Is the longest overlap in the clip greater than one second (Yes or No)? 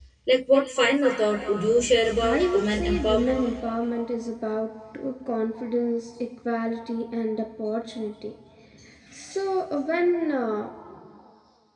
Yes